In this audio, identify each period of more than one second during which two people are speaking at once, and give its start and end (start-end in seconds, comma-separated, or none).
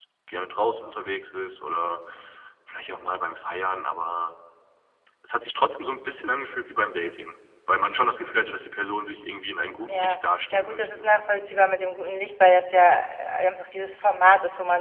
9.9-11.1